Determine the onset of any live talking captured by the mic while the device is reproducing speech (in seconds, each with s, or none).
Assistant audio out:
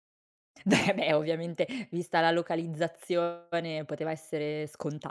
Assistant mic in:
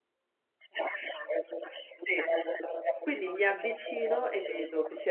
1.8 s